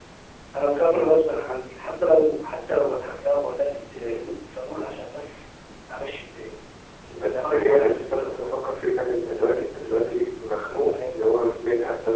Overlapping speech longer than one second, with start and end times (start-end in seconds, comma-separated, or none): 7.2-8.6